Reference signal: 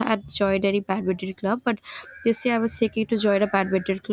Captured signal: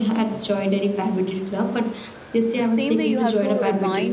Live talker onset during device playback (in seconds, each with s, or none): 2.6 s